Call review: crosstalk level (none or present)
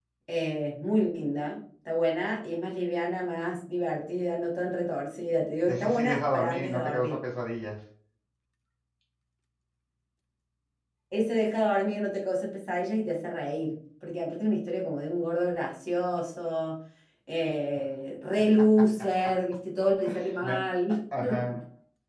present